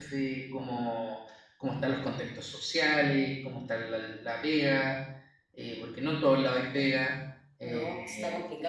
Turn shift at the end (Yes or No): Yes